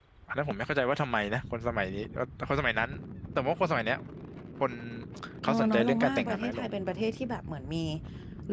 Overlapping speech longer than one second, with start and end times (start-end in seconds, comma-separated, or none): 5.4-6.7